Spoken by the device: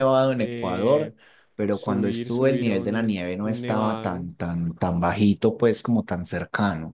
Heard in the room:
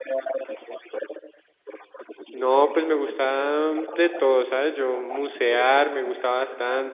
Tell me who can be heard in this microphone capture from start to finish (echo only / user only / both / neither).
both